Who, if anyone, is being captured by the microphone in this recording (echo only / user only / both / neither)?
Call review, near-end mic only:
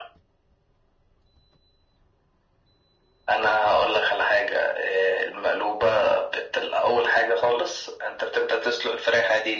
echo only